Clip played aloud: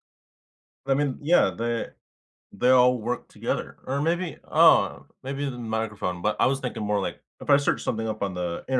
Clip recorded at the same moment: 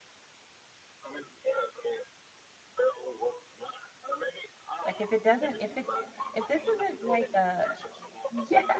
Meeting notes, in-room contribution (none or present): present